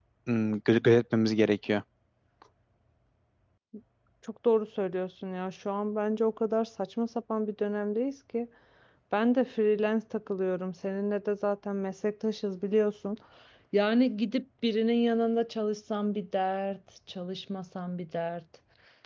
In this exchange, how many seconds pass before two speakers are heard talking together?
none

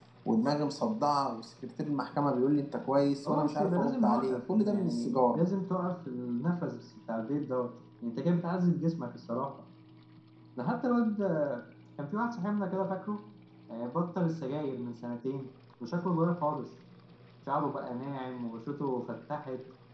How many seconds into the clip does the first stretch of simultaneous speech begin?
3.2 s

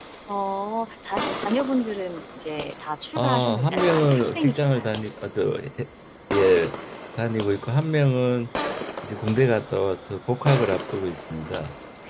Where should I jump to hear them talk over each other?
3.1 s

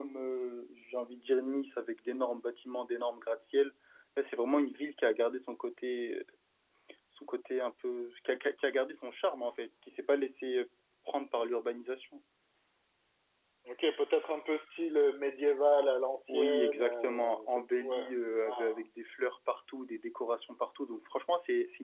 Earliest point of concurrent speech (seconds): 16.3 s

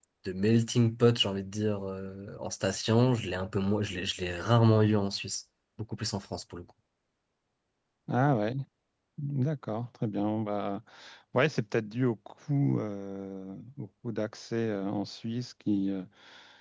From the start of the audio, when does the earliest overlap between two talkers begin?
none

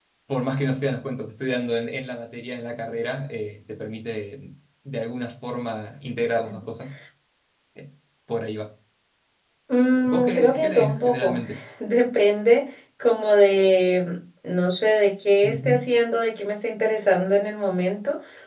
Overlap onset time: 10.1 s

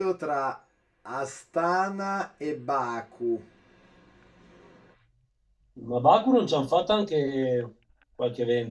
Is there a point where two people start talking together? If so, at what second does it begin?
none

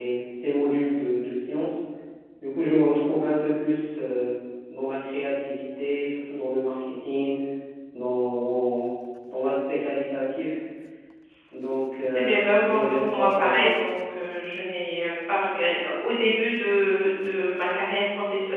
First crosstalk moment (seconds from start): 12.1 s

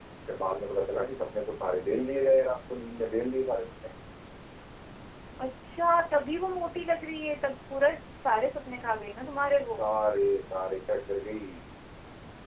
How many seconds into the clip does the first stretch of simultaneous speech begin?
none

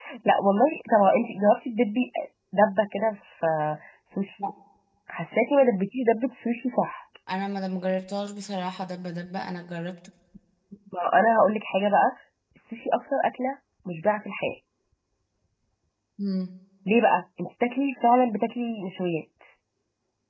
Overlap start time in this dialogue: none

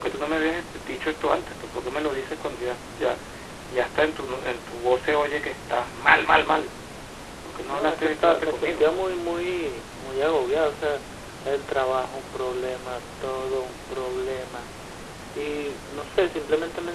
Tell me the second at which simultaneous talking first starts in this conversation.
7.7 s

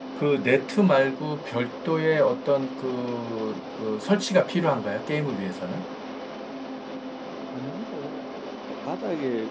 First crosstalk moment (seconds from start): none

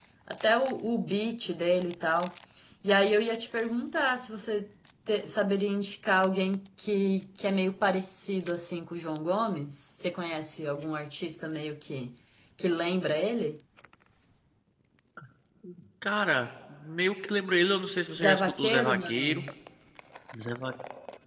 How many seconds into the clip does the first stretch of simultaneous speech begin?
18.1 s

